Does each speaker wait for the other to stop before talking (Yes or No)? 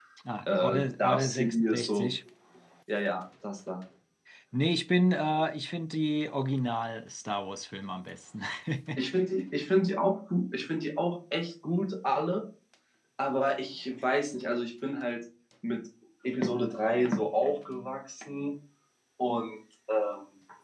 No